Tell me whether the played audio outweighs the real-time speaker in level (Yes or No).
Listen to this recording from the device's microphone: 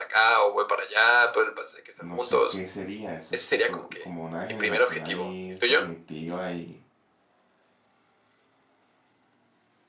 Yes